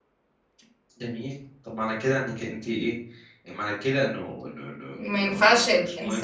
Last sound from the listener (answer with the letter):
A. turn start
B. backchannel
A